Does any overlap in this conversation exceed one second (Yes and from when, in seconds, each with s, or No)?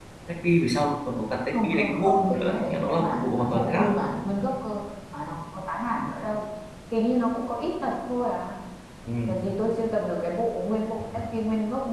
Yes, from 1.5 s